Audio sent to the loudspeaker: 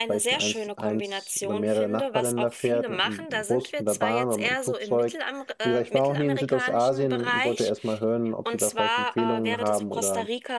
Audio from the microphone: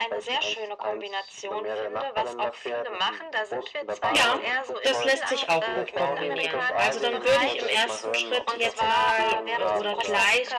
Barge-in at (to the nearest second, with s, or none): 4 s